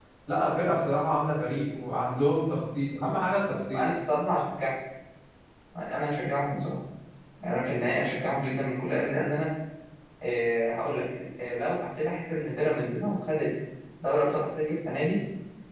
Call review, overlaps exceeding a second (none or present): none